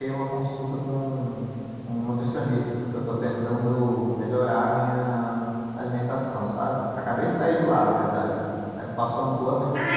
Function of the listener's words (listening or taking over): listening